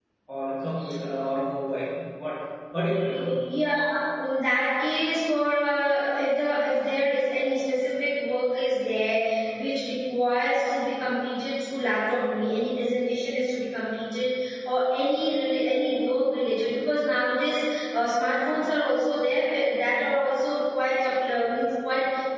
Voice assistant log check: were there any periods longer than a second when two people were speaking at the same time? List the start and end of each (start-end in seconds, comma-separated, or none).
none